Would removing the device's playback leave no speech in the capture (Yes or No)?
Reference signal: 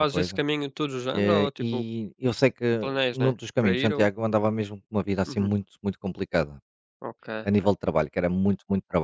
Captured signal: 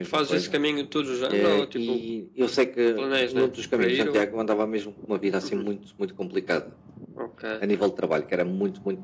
Yes